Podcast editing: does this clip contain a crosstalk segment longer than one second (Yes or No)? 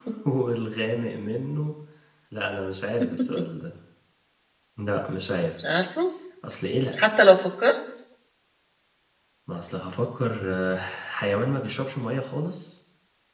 No